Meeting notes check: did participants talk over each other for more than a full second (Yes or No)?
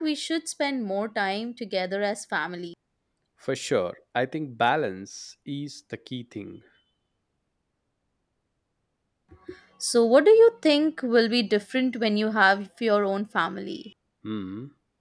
No